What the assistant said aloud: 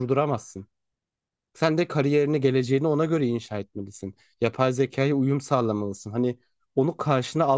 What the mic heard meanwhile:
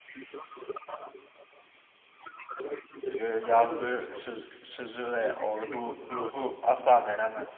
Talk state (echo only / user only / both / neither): both